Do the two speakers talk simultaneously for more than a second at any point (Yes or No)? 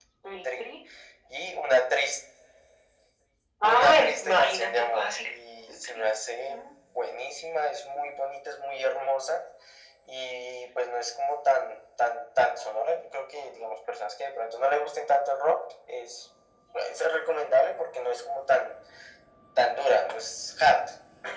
Yes